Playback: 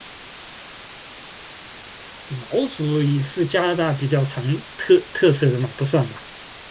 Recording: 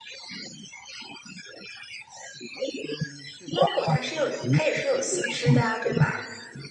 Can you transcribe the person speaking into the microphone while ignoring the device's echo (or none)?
猫狗它是有，它也是有四肢的啊，对吧？